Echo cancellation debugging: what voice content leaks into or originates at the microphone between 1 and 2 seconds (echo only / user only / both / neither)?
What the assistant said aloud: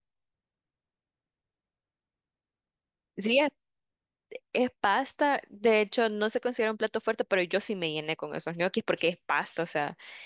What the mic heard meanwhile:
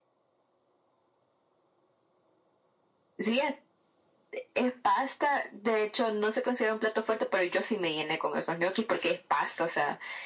neither